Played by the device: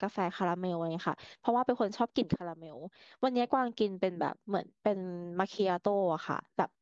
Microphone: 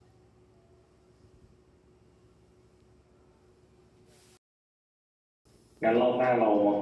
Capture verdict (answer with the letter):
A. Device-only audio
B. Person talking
B